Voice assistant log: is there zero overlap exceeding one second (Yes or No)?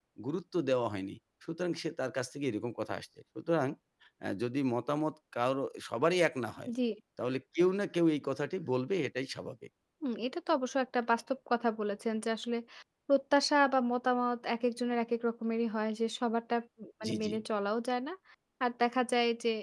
Yes